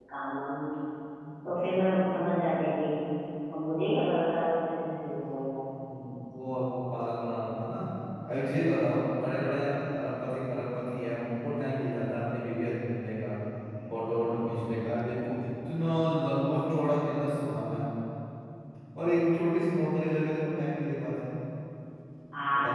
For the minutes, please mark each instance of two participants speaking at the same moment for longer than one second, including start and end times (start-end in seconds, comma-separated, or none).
none